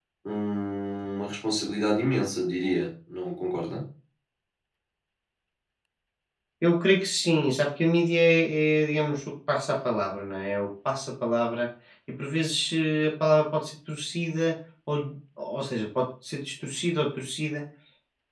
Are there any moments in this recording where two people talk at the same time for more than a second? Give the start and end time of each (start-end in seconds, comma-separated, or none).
none